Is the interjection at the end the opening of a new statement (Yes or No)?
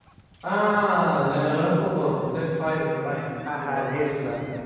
Yes